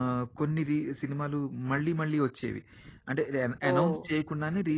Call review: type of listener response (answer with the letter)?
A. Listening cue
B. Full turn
A